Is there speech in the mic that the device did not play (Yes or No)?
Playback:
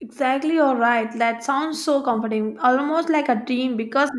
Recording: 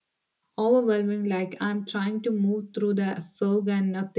Yes